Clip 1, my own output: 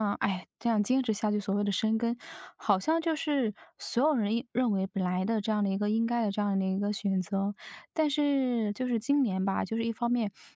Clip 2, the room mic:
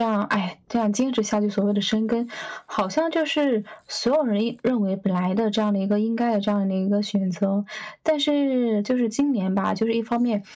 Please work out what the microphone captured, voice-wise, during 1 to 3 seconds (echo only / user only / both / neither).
echo only